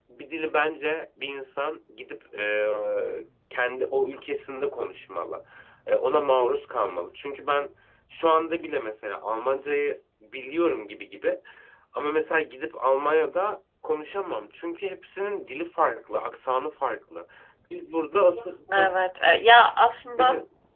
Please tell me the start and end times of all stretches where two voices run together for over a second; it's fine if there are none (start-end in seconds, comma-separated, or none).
none